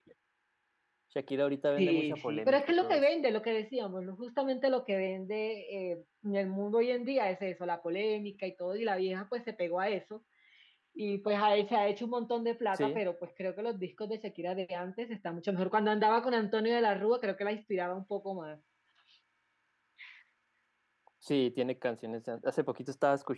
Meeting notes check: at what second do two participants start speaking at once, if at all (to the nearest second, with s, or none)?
2 s